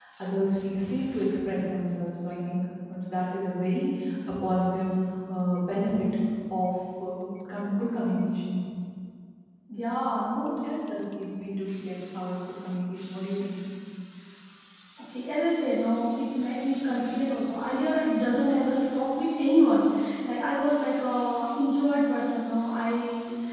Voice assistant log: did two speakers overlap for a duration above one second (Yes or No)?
No